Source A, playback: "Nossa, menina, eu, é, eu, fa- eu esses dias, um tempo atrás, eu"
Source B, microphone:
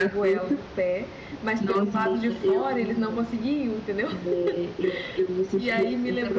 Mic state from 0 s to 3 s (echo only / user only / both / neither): both